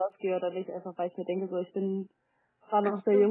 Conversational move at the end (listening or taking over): listening